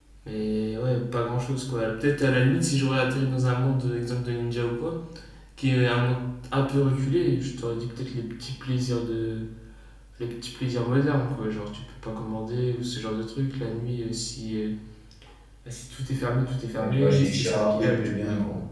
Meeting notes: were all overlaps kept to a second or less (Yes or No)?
No